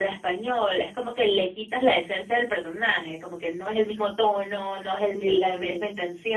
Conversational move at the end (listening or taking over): listening